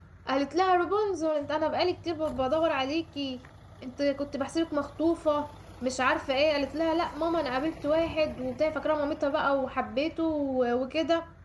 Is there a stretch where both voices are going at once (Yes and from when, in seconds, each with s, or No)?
No